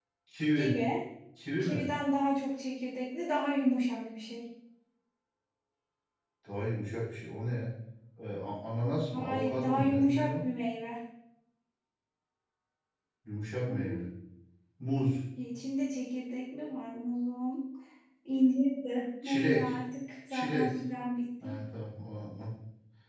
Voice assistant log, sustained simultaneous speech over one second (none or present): present